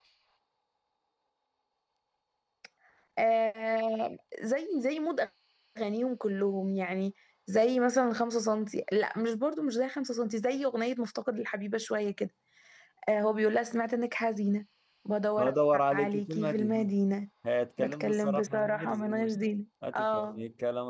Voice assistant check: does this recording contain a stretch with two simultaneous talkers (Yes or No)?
Yes